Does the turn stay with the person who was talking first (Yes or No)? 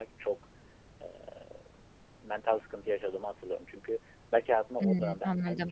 Yes